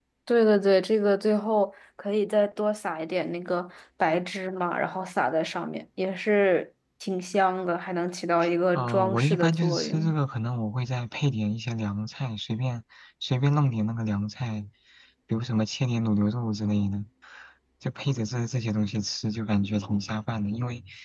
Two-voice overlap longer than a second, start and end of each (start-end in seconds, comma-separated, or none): 8.7-10.1